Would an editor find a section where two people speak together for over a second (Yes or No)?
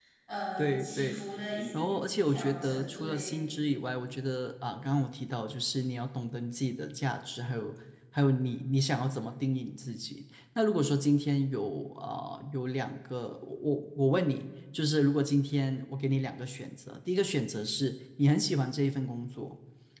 Yes